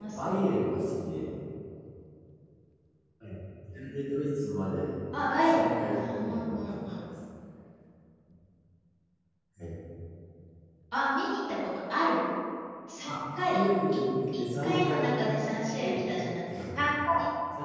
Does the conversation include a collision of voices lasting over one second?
Yes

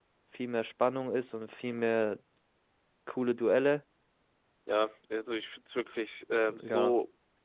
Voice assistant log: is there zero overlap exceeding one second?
Yes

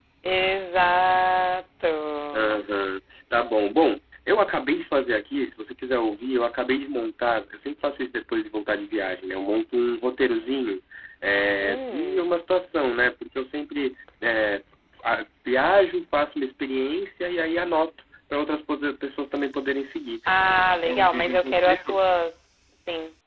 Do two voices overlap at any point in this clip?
Yes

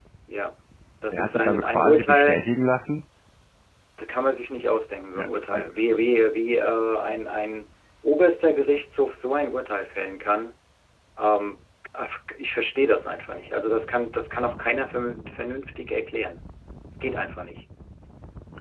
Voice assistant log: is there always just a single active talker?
No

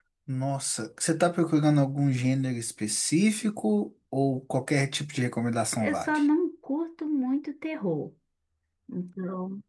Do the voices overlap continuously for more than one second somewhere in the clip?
No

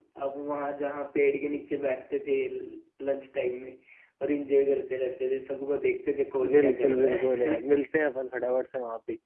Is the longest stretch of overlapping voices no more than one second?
No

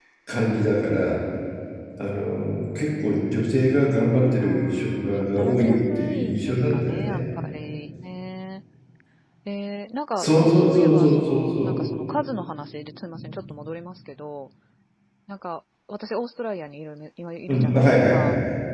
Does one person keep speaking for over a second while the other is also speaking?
Yes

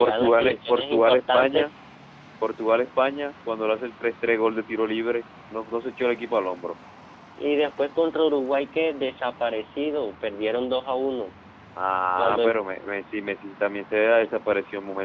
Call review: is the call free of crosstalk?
No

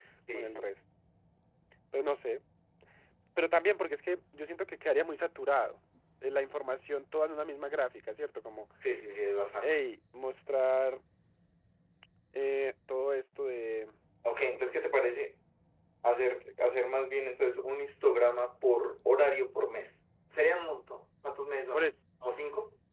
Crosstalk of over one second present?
No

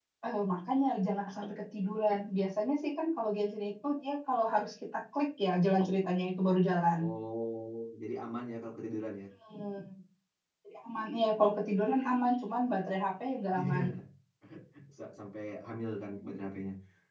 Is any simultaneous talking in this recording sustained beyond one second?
No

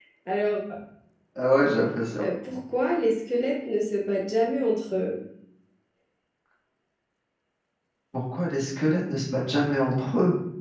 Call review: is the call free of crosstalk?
Yes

